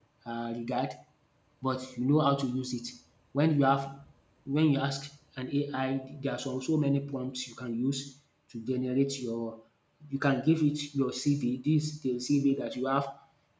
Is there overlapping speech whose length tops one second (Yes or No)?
No